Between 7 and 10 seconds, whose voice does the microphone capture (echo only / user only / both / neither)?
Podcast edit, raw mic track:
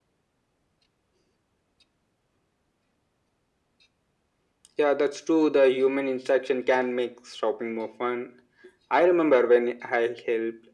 echo only